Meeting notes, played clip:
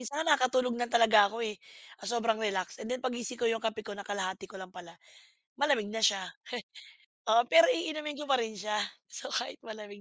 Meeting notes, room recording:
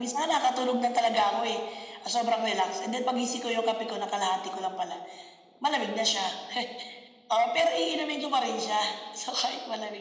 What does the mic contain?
echo only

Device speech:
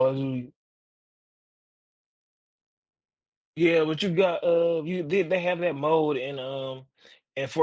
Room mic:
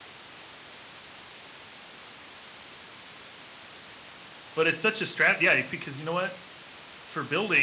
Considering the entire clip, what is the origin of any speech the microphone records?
user only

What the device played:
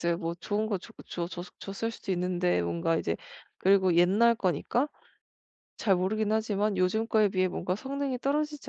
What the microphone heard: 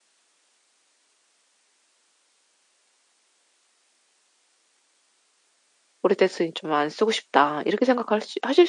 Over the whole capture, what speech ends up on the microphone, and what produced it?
user only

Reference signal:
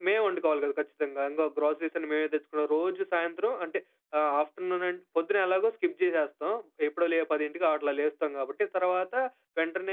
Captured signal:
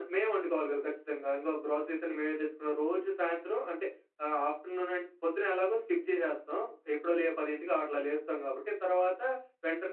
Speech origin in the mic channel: echo only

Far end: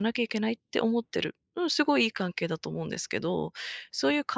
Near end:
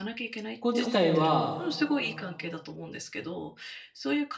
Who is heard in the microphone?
both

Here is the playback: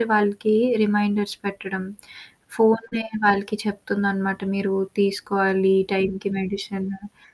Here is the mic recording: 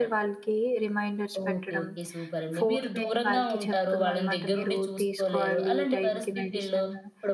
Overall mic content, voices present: both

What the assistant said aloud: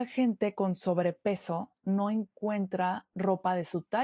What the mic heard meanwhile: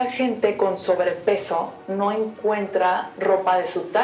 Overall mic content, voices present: echo only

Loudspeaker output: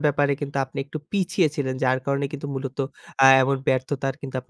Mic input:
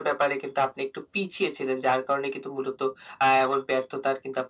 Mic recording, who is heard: echo only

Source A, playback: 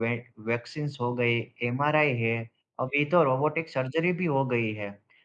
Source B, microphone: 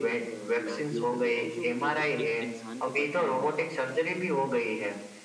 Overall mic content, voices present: both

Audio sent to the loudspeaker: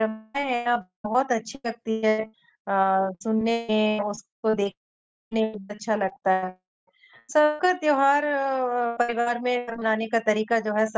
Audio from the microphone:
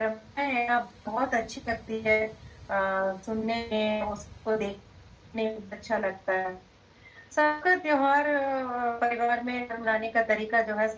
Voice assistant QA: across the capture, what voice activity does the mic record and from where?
echo only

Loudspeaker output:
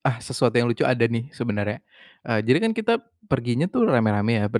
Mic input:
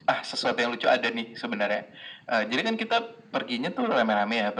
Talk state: echo only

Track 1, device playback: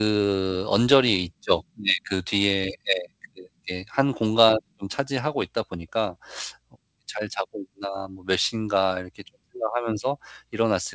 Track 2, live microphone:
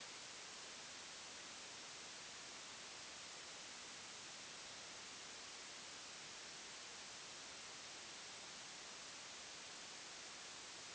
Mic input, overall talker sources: neither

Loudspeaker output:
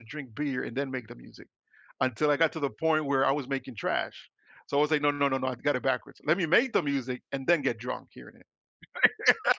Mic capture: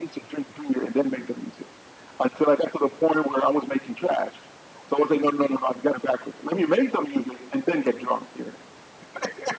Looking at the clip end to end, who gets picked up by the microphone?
echo only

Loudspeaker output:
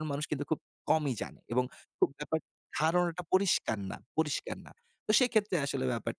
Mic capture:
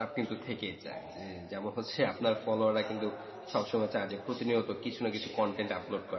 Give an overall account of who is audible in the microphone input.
both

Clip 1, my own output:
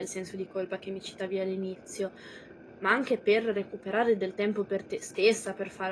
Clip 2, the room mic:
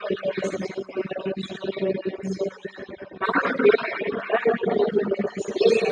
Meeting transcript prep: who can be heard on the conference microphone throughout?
echo only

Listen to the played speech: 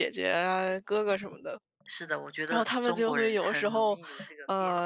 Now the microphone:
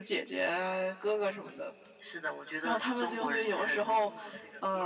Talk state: echo only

